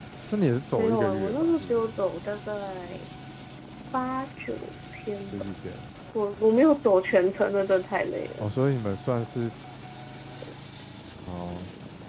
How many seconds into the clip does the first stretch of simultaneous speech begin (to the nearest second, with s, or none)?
1 s